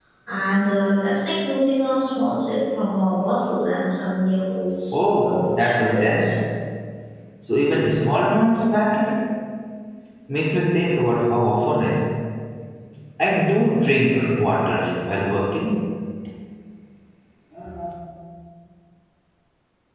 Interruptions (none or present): present